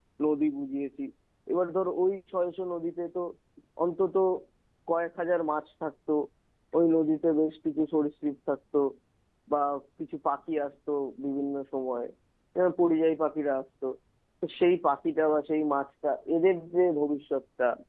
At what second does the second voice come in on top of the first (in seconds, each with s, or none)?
none